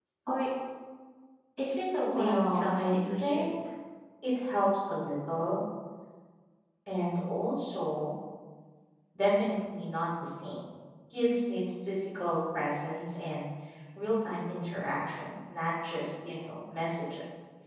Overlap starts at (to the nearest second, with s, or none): 2 s